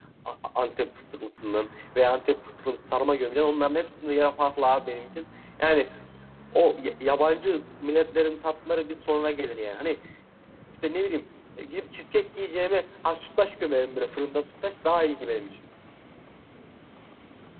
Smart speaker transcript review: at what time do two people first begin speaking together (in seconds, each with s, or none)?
none